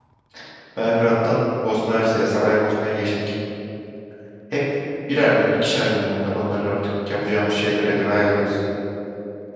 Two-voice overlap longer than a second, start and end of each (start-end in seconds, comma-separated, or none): none